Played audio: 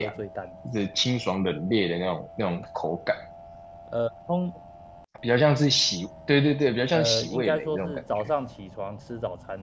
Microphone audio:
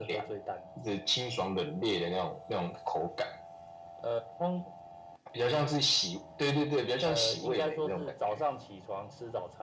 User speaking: No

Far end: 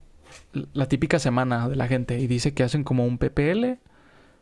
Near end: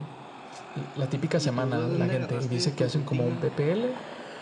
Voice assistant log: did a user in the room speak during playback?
Yes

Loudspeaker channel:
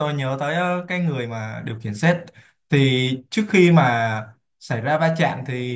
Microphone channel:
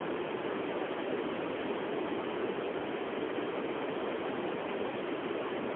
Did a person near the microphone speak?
No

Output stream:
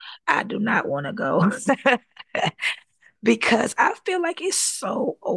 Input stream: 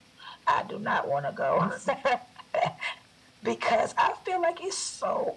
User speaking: No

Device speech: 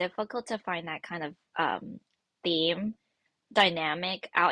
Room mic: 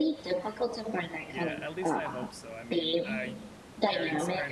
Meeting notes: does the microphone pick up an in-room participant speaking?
Yes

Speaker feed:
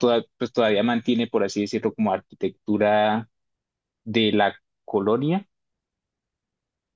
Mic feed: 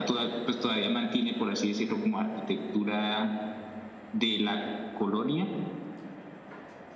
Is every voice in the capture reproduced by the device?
Yes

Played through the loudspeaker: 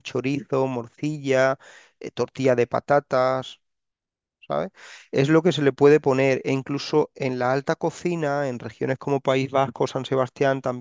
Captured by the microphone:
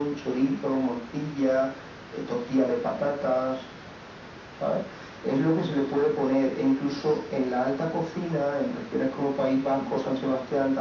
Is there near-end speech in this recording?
No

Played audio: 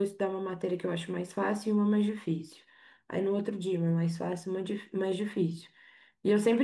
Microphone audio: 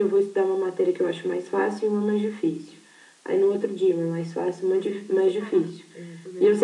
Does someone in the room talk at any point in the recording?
Yes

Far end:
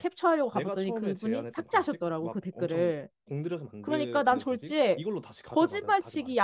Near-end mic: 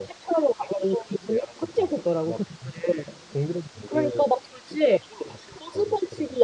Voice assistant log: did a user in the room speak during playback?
No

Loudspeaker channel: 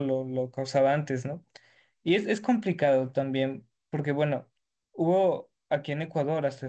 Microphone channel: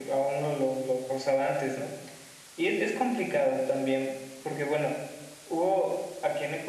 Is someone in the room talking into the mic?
No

